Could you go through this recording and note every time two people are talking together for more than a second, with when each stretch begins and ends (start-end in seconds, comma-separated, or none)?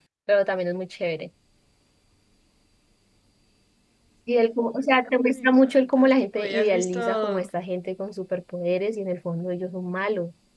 5.3-7.4